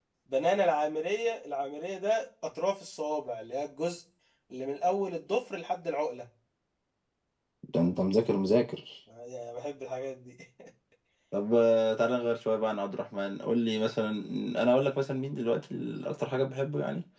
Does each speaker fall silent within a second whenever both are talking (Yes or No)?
Yes